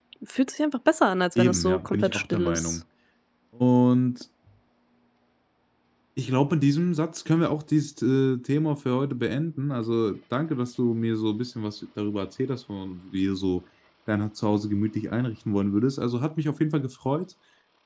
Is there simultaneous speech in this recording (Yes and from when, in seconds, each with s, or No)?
Yes, from 1.4 s